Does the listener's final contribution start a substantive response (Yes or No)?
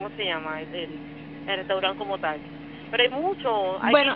No